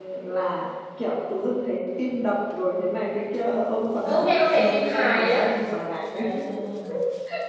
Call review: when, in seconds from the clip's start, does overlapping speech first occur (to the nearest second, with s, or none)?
4 s